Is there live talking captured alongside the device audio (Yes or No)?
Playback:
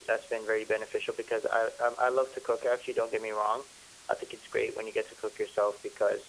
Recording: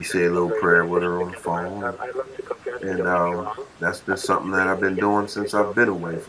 Yes